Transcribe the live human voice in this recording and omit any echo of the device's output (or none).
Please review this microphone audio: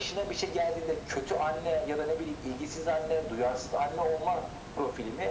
none